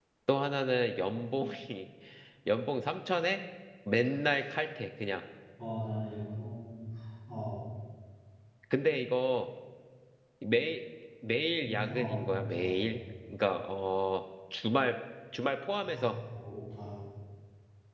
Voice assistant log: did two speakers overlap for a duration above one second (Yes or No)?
Yes